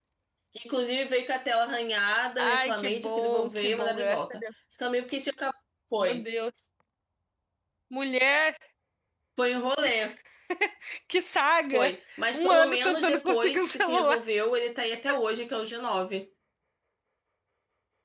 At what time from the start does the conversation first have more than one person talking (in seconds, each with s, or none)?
2.4 s